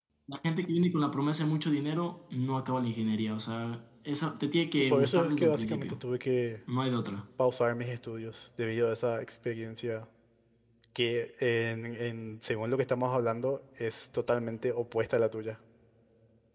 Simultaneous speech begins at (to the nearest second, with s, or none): 5 s